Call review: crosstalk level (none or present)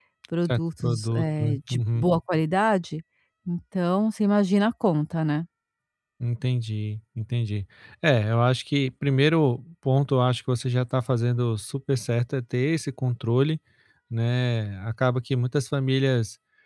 present